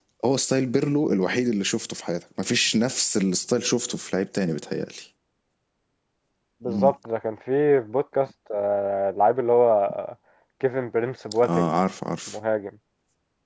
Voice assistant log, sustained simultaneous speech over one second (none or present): none